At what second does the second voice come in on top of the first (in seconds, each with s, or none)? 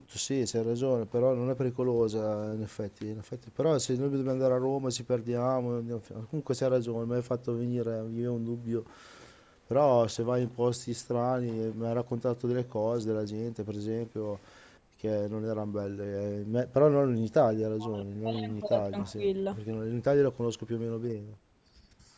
17.8 s